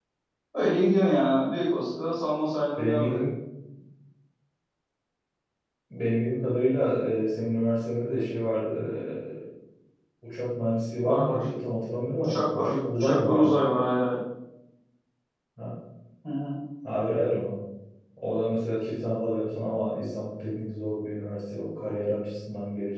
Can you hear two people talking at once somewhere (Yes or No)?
Yes